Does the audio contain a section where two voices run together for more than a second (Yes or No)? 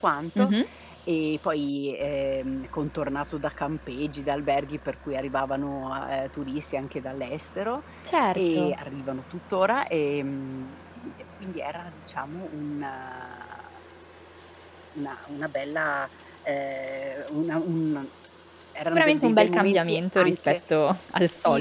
Yes